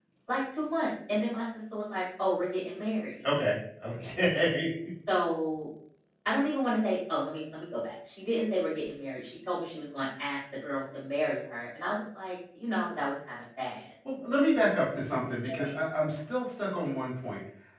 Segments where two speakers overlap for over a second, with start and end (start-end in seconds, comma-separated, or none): none